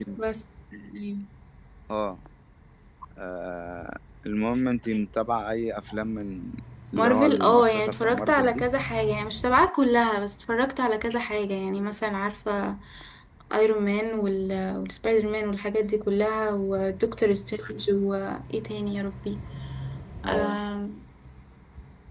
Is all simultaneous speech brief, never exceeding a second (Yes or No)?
No